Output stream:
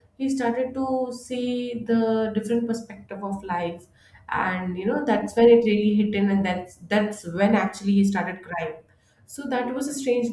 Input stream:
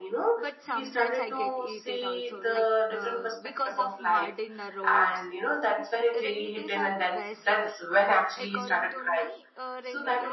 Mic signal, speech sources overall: both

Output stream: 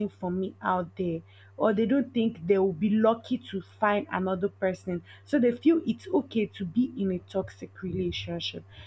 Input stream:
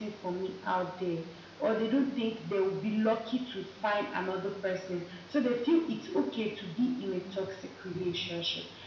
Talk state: echo only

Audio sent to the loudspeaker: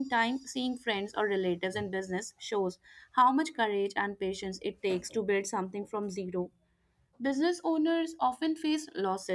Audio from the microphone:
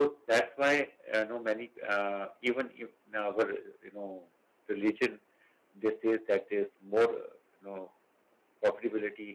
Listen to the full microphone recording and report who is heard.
user only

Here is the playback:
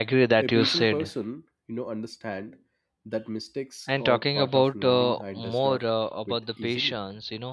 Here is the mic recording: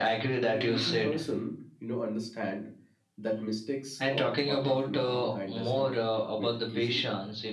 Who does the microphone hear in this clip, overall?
echo only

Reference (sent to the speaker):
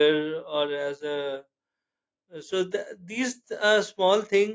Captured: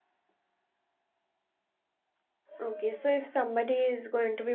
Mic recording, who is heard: user only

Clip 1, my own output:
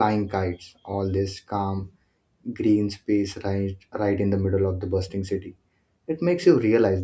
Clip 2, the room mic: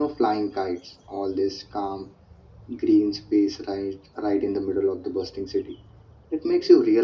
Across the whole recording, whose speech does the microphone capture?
echo only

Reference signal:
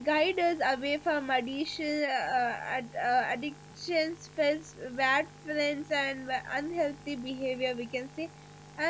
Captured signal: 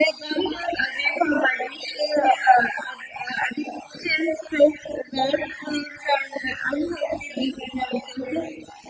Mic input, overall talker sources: echo only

